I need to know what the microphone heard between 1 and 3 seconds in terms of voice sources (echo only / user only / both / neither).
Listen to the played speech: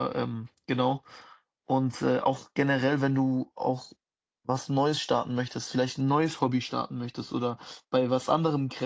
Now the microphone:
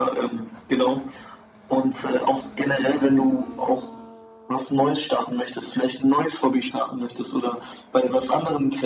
echo only